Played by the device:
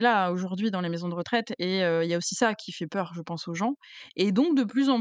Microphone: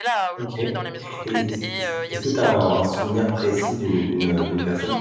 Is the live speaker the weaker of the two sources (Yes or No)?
No